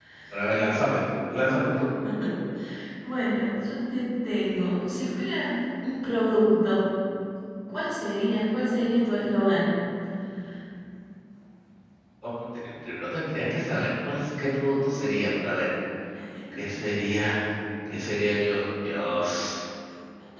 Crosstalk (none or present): none